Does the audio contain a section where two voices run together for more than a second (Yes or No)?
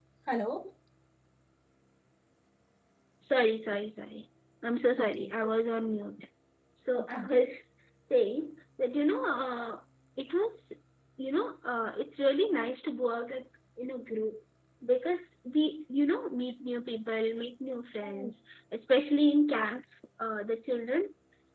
No